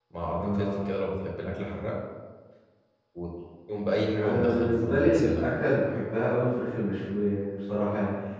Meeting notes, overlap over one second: present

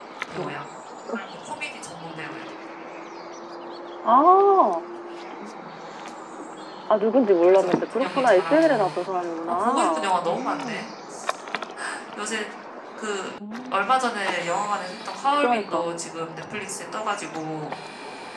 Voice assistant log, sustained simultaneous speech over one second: present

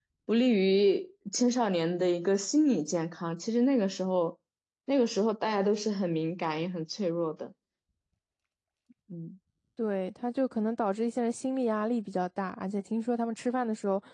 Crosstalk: none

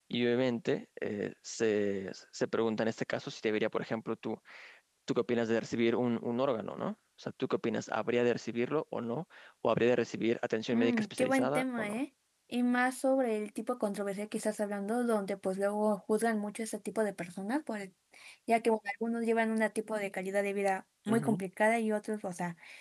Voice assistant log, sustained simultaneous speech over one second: present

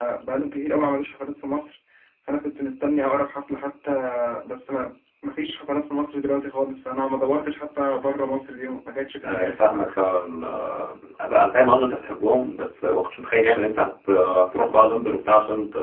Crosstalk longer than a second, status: none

